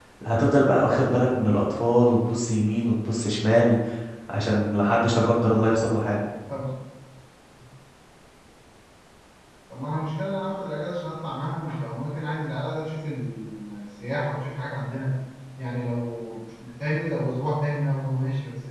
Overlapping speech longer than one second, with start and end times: none

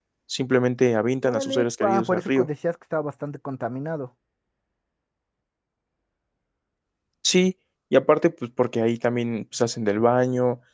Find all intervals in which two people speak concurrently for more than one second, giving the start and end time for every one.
1.2-2.5

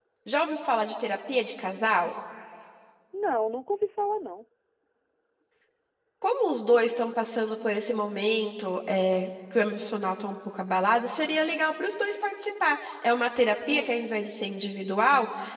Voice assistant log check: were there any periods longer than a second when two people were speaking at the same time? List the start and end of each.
none

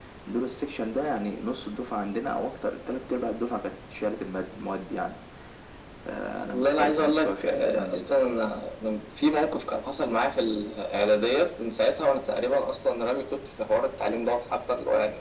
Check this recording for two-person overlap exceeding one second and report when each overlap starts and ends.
6.5-8.1

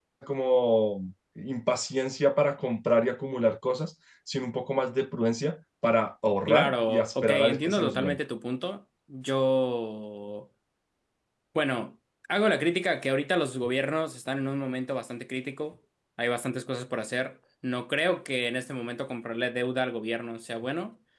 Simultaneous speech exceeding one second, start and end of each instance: 6.5-8.2

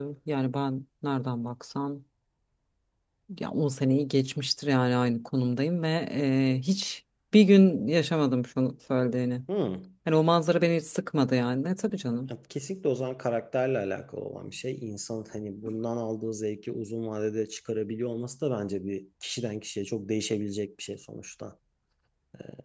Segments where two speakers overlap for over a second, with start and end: none

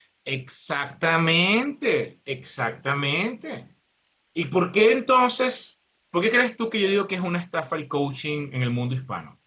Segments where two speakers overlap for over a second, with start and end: none

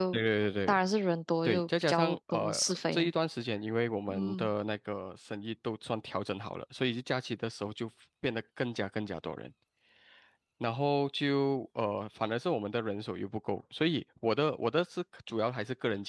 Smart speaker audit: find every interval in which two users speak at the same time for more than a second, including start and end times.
1.4-3.1

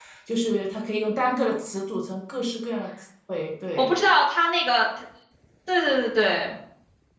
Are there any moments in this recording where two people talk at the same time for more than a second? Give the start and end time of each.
none

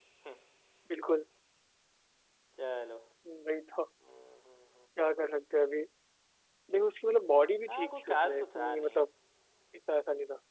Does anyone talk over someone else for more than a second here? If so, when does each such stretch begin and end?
7.7-9.0

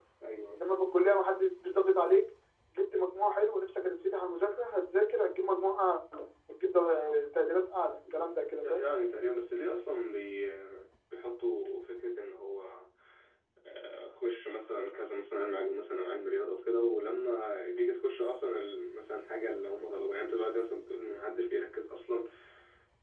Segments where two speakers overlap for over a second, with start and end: none

